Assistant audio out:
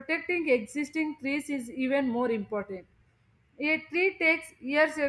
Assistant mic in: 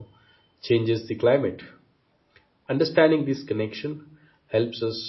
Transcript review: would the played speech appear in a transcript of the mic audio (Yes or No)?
No